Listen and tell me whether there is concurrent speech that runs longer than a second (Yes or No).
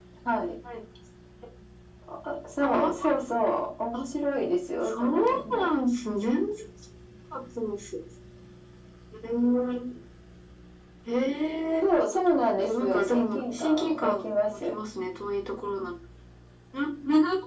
Yes